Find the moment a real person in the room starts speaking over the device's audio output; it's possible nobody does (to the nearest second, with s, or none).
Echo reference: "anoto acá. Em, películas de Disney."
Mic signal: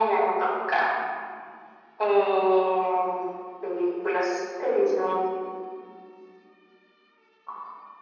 none